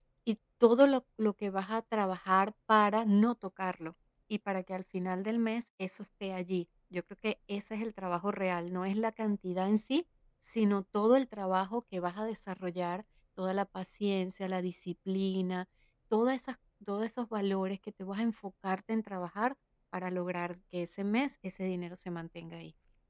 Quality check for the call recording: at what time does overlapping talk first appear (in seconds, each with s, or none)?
none